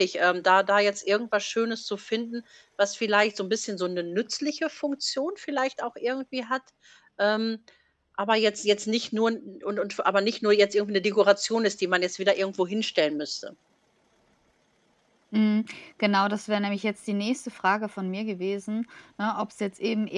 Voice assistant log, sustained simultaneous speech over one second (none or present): none